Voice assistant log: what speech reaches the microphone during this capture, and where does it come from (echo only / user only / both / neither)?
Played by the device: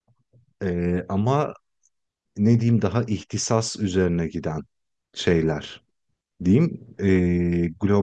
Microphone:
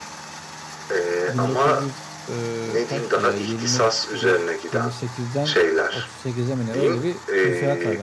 both